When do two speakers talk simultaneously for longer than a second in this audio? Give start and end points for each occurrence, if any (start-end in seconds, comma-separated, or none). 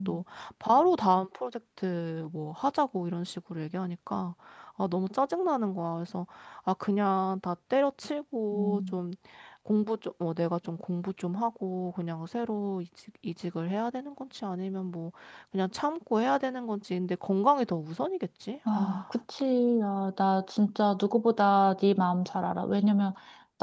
none